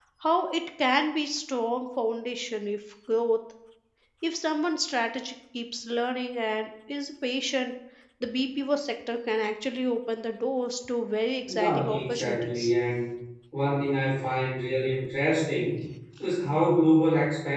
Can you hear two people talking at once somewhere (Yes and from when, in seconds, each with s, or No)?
Yes, from 11.5 s